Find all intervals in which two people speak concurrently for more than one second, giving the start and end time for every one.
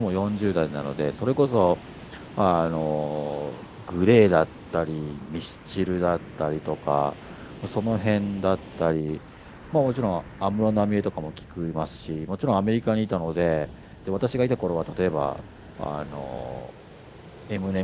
none

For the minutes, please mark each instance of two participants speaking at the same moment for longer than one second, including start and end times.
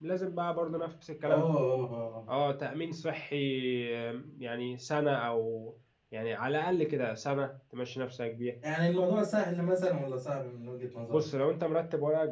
none

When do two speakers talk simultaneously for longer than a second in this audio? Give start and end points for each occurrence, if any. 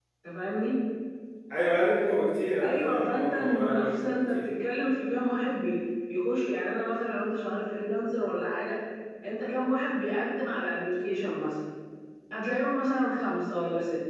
2.6-4.4

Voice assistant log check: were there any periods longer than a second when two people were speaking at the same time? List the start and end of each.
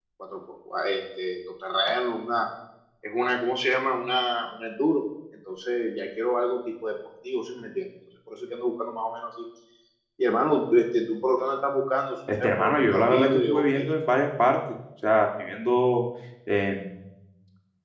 12.4-13.9

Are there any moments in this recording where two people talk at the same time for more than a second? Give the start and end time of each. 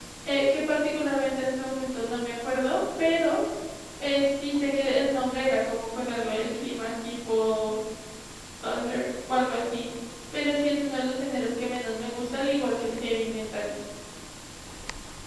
none

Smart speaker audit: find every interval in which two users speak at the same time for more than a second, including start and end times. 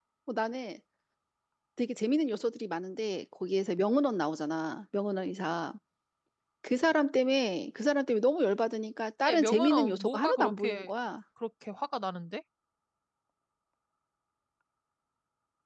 9.2-10.9

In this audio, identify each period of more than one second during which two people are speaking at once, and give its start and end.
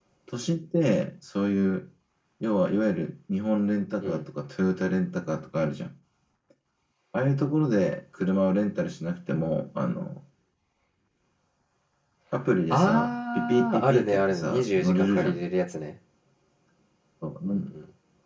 12.7-15.4

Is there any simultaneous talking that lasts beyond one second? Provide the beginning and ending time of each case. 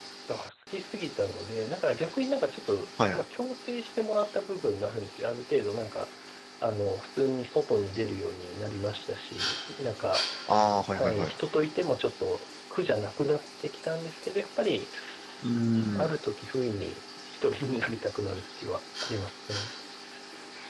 none

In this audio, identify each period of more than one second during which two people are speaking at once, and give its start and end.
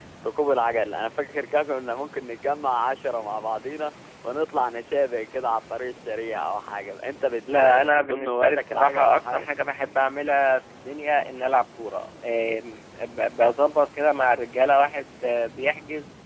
7.6-9.5

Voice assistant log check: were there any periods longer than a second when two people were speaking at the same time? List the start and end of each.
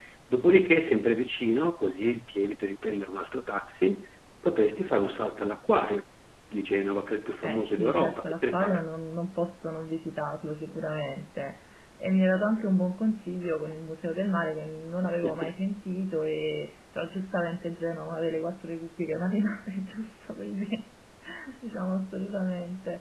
7.4-8.8

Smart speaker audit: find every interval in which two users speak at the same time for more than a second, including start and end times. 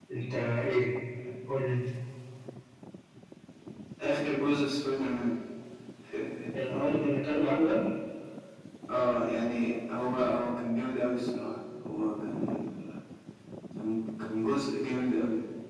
none

